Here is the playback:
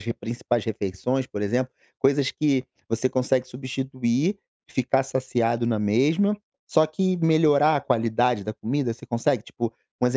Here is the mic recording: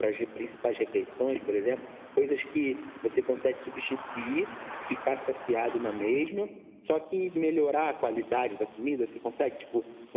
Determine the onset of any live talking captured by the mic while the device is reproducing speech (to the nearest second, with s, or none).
none